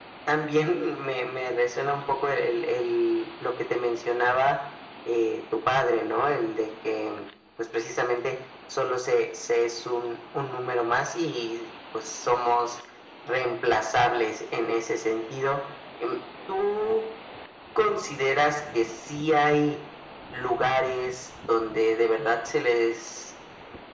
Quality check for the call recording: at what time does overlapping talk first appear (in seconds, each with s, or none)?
none